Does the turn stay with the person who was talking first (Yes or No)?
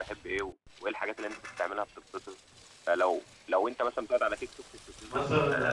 No